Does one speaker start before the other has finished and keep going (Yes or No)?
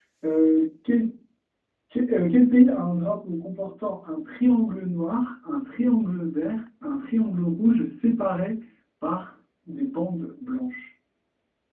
No